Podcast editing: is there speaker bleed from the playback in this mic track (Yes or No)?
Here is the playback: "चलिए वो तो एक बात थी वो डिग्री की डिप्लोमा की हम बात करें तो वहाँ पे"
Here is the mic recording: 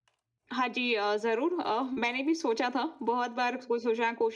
No